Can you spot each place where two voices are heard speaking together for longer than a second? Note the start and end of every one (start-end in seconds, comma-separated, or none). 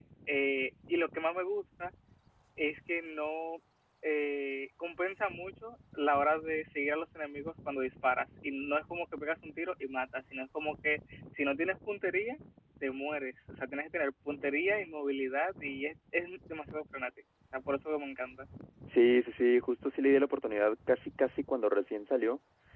none